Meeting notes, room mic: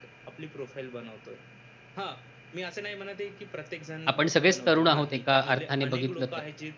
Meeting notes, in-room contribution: present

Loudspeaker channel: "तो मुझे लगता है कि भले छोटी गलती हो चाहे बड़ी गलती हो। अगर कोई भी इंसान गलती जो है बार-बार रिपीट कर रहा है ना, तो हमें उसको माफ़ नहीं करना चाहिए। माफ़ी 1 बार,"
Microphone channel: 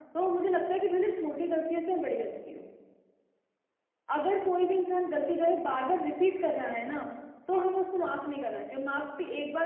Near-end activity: none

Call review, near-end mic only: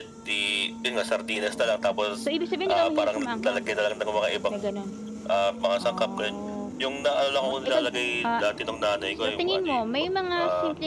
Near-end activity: present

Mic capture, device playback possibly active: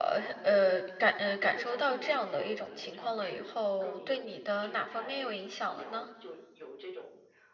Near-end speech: present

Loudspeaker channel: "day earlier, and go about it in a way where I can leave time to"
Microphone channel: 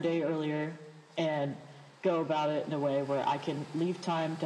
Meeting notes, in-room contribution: none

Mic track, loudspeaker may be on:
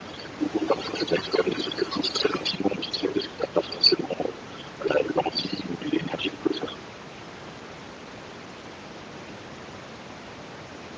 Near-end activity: none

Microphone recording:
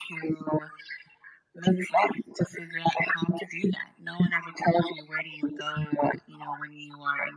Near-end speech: none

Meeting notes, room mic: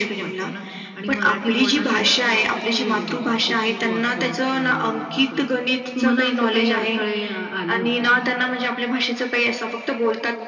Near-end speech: none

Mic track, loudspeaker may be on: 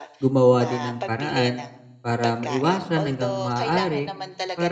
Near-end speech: present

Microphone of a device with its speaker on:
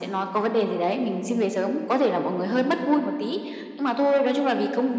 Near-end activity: none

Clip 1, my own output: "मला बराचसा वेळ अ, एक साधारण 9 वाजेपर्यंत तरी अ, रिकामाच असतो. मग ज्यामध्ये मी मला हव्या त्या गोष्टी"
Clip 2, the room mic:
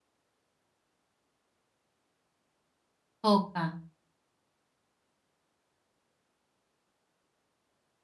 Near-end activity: present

